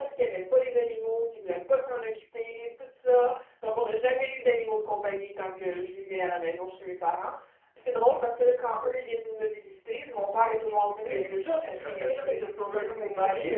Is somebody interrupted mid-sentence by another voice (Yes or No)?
Yes